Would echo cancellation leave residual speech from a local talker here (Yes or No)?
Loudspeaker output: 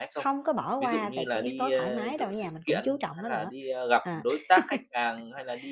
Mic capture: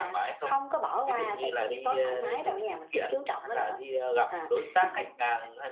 No